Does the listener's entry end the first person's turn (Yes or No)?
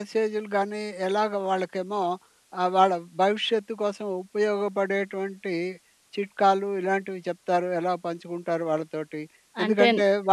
No